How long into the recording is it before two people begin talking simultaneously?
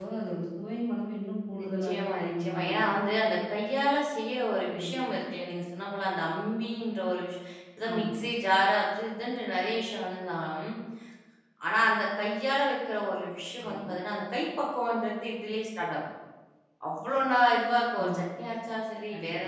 2 s

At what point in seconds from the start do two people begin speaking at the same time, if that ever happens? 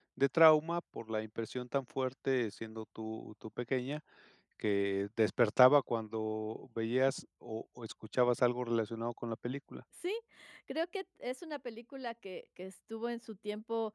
none

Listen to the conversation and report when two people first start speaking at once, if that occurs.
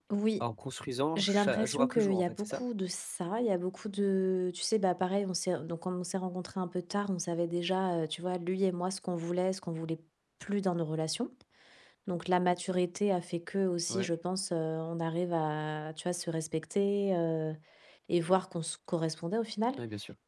1 s

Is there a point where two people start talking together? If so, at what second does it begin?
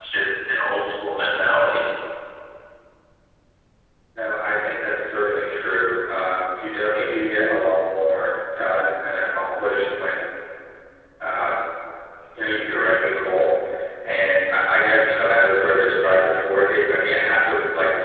none

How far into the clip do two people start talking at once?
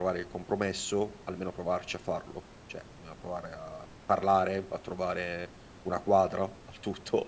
none

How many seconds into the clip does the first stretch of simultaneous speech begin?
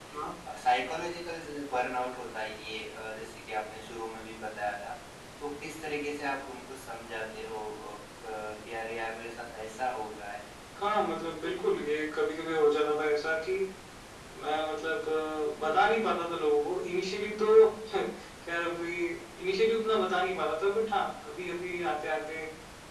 none

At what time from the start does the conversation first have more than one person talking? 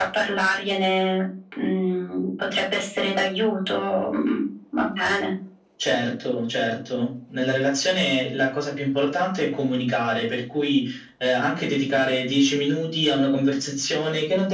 none

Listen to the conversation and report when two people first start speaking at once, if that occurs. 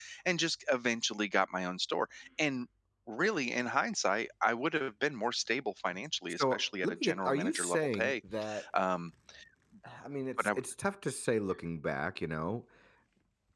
6 s

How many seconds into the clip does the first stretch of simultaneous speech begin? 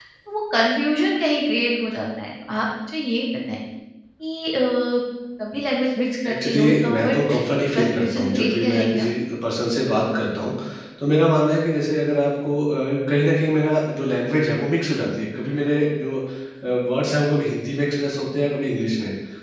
6 s

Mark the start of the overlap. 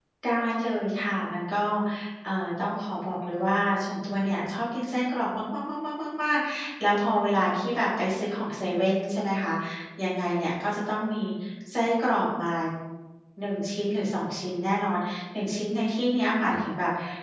none

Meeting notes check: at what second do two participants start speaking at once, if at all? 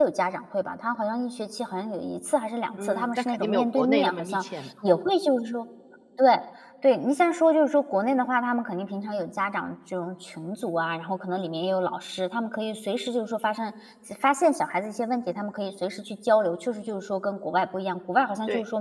3 s

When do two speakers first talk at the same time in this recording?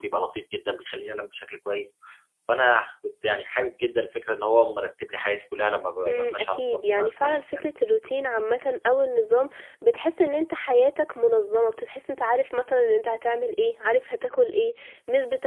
6 s

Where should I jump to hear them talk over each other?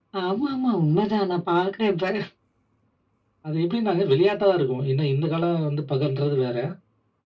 none

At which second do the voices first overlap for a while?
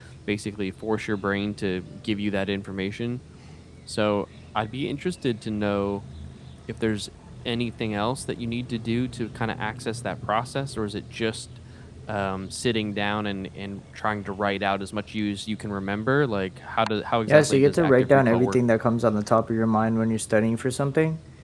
17 s

